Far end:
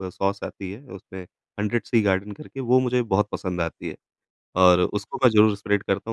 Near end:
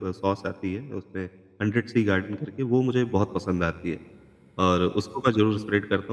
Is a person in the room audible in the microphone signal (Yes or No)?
No